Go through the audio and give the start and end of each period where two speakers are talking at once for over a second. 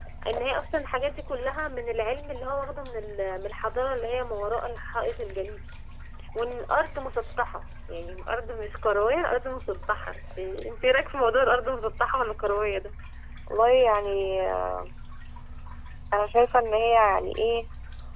none

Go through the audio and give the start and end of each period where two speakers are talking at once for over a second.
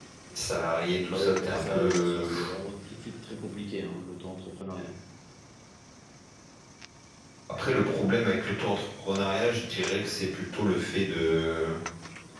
1.1-2.3

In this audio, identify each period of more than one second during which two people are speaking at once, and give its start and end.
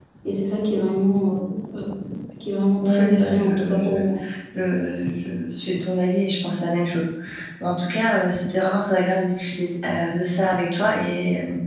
2.8-4.0

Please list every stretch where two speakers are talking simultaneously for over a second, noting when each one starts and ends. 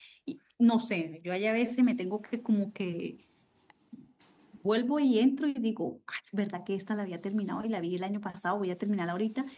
none

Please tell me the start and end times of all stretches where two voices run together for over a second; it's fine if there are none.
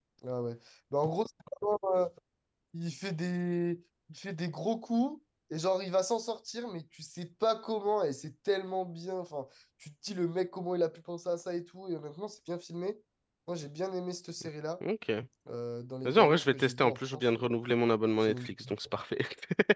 16.0-17.5

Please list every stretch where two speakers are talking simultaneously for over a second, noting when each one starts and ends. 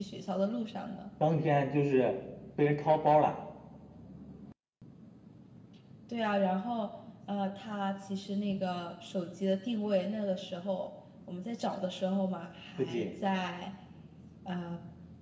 none

